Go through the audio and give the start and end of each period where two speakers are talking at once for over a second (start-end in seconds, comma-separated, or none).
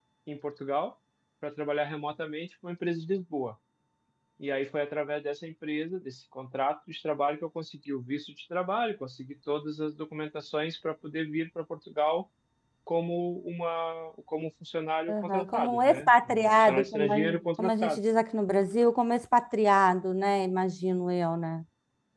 15.1-17.2